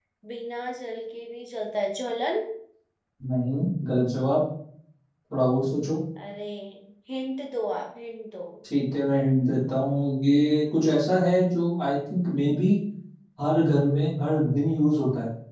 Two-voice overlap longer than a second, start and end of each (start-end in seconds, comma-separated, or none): none